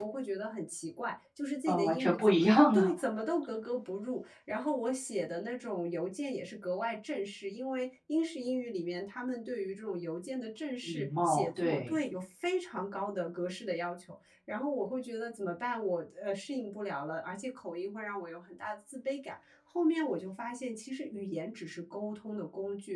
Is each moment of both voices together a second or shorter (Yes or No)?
No